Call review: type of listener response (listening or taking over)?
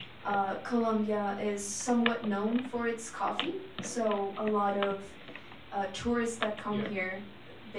listening